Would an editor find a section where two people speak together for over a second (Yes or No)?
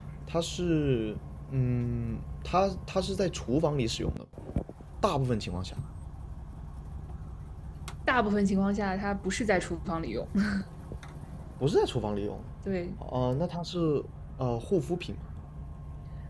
No